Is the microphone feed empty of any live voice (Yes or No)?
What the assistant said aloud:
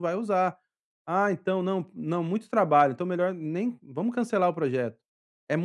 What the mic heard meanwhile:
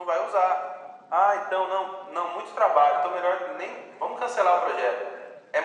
Yes